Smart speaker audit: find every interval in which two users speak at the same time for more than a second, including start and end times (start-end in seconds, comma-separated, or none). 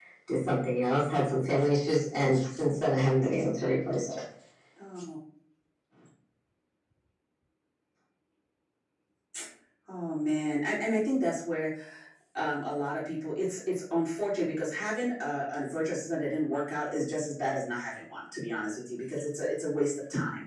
none